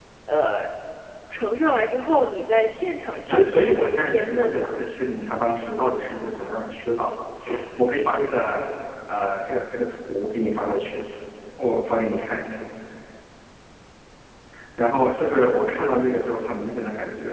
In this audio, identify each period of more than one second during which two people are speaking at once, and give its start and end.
3.3-4.9

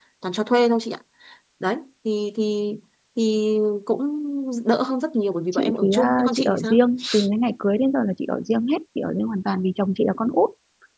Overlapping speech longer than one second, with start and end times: 5.5-6.8

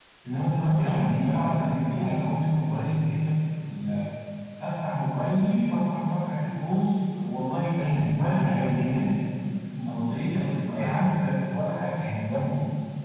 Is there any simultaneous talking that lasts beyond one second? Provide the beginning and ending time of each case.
0.6-2.2, 7.8-9.1

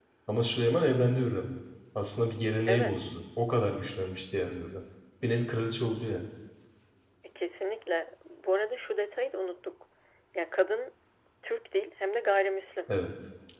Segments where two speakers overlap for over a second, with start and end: none

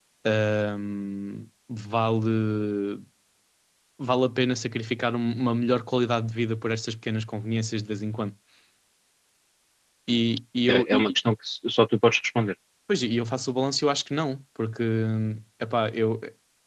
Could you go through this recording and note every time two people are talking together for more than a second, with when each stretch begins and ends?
none

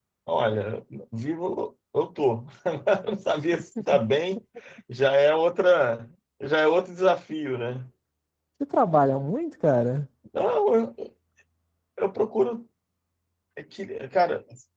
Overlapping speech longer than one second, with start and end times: none

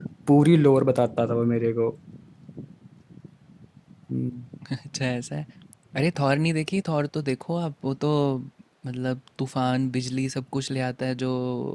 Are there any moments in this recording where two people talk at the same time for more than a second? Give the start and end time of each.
none

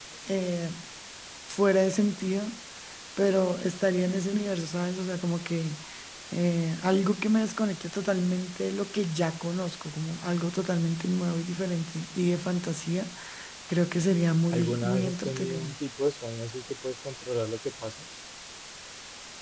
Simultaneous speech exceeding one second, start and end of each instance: 14.5-15.7

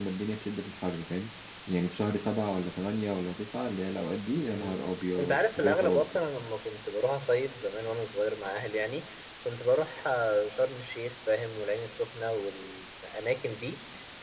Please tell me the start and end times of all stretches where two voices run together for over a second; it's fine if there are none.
4.4-6.2

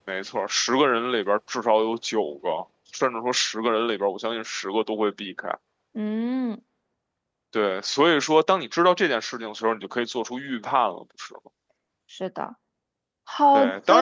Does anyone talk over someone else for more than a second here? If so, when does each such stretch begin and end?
none

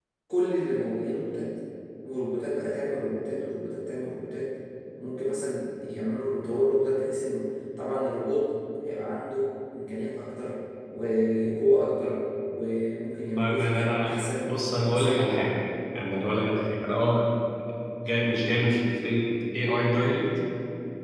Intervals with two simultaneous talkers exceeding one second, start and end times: 13.4-15.3

